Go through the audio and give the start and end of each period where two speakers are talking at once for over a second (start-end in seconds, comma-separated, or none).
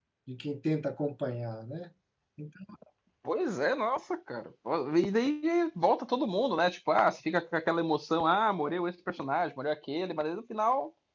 none